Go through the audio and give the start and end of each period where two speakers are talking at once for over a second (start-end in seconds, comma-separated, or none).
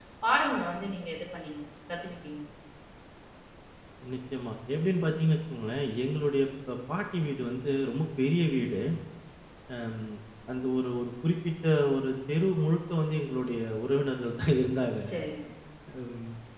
none